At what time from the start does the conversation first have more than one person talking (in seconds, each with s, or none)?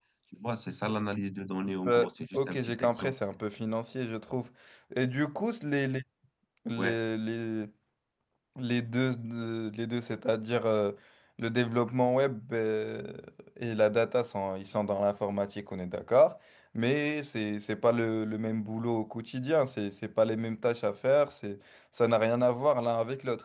1.9 s